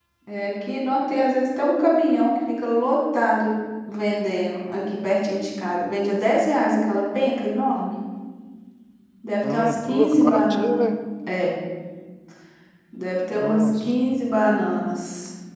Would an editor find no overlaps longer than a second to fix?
No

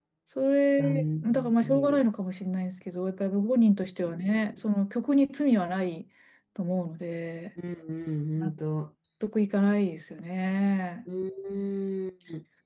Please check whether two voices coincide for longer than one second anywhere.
Yes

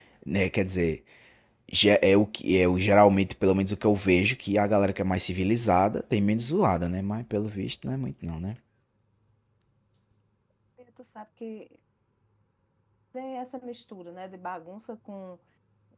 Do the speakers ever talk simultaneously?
No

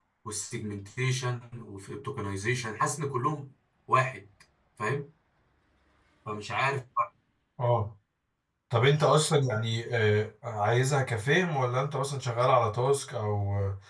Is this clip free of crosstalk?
Yes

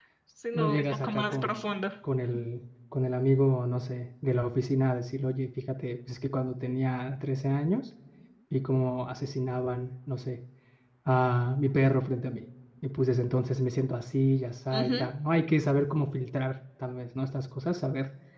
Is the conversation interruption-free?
No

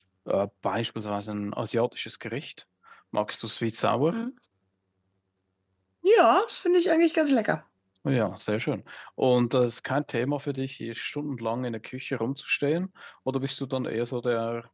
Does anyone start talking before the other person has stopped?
No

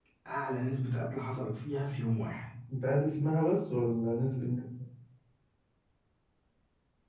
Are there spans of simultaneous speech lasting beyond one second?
No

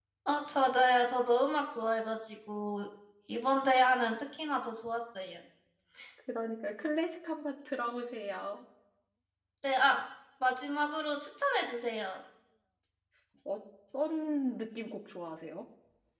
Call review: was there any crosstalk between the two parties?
No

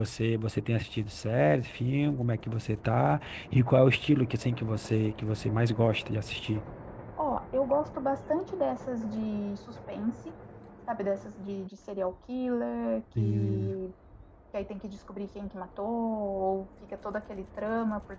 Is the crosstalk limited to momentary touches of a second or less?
Yes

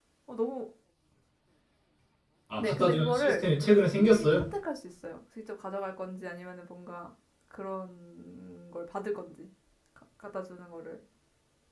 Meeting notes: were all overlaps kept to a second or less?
No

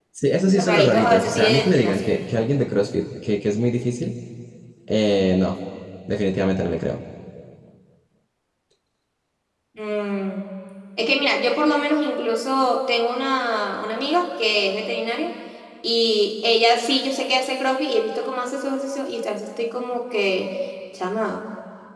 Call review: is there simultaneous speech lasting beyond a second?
Yes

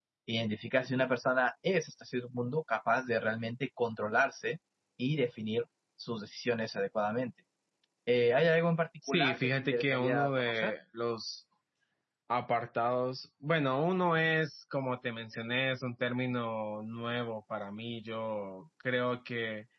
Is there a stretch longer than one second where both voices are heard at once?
Yes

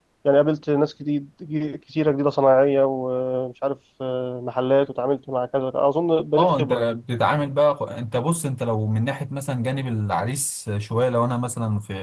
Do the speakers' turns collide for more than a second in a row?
No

